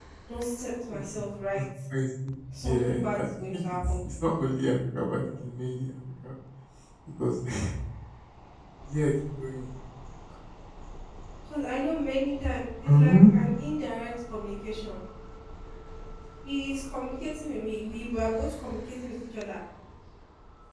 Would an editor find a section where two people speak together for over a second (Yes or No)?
Yes